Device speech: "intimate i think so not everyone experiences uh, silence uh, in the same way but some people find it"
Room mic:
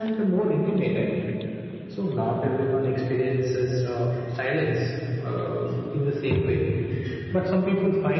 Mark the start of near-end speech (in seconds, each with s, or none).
none